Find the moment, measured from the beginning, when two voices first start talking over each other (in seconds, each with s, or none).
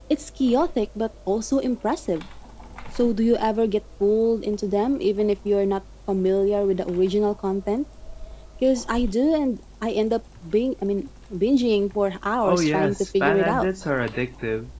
12.4 s